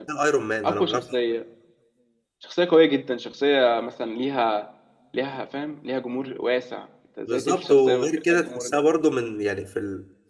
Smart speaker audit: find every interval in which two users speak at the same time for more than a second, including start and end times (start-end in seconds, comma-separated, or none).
7.3-8.8